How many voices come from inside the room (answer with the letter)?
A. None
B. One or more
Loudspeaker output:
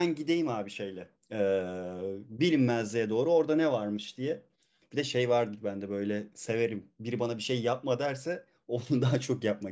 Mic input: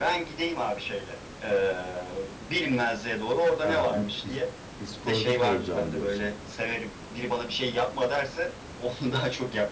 B